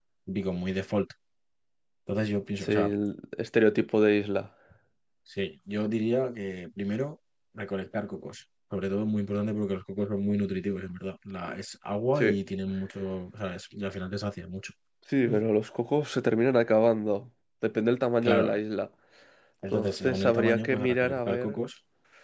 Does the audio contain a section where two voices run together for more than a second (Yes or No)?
Yes